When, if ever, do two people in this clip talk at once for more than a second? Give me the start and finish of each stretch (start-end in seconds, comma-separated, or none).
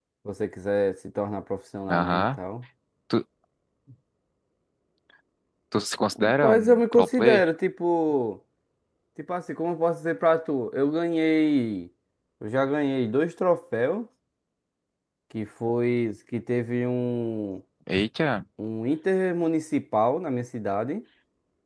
6.2-7.4